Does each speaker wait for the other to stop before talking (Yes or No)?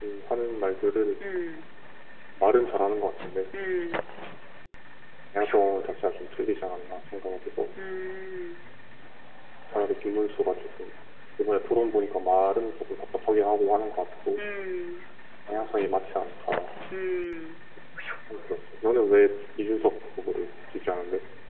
Yes